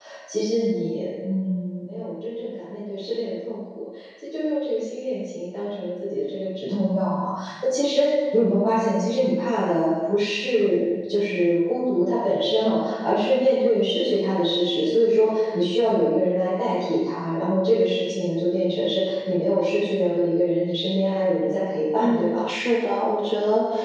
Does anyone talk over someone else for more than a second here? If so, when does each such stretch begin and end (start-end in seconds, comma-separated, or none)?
none